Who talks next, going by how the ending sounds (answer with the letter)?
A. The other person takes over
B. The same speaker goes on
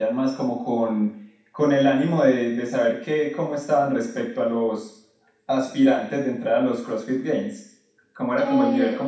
A